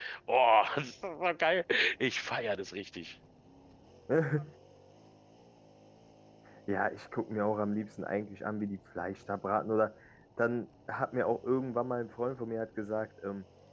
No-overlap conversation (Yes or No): Yes